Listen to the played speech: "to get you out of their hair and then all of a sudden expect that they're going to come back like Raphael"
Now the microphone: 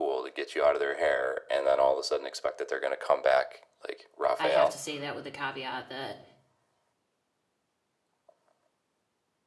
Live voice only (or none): I have to say that with the caveat that